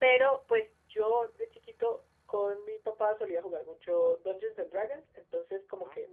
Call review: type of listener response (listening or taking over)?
listening